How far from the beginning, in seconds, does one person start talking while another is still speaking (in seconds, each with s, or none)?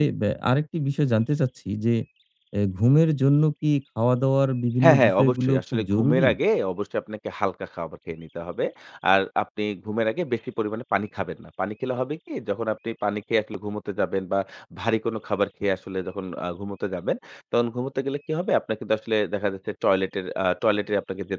4.8 s